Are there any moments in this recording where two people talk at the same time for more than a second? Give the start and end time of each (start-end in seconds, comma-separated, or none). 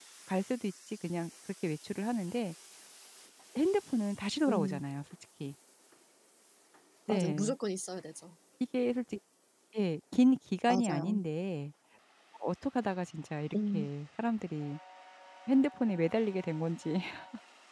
none